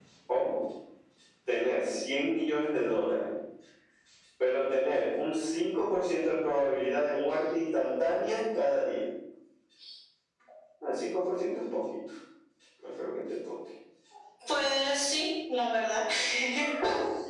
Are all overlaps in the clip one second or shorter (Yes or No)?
Yes